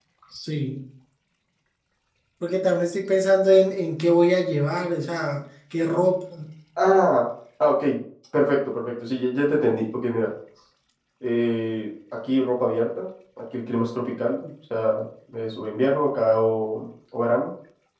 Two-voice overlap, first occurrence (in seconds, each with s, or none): none